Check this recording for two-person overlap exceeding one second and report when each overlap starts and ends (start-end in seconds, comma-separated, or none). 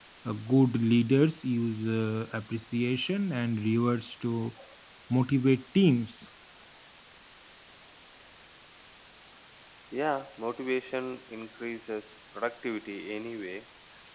none